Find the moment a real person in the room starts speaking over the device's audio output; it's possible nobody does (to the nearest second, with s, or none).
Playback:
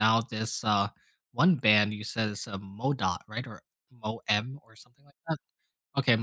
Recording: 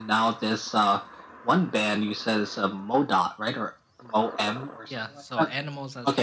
5 s